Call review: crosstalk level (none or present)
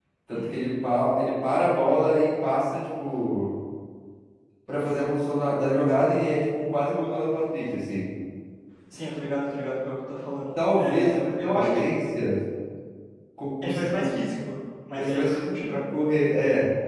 present